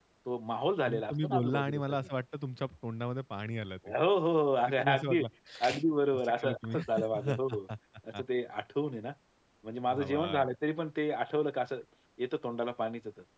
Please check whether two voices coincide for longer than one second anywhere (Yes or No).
Yes